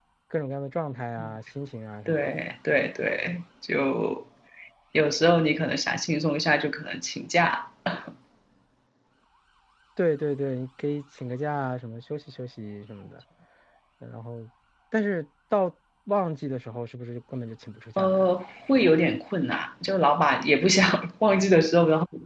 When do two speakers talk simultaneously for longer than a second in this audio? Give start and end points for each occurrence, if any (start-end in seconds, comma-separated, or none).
none